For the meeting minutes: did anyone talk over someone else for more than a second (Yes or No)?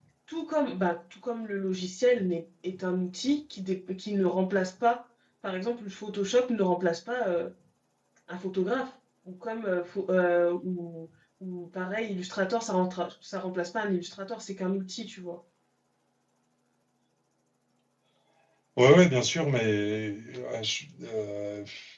No